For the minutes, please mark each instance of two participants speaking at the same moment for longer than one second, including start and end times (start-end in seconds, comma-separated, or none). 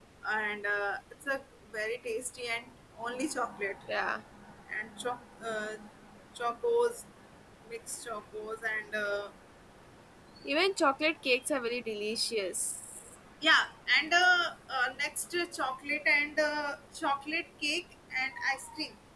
none